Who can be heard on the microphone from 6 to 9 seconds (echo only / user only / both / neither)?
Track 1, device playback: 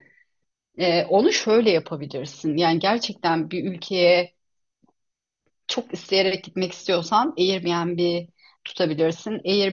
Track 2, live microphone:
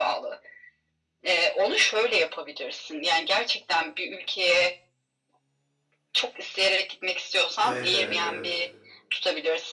both